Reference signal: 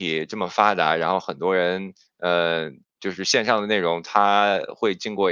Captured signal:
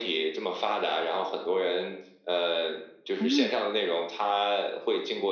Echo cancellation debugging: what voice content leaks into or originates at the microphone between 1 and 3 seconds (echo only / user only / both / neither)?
echo only